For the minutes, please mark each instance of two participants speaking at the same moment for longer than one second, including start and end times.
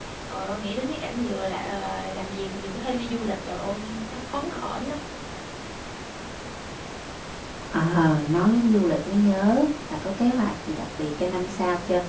none

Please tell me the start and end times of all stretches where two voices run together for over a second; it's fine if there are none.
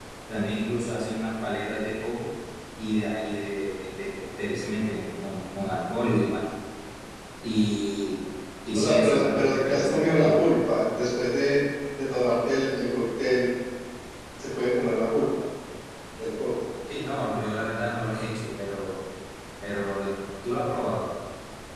8.7-10.4

